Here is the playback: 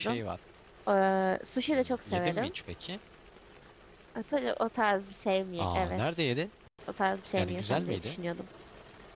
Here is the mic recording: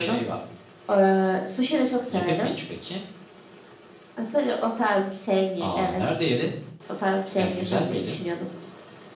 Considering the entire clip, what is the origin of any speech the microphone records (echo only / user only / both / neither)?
echo only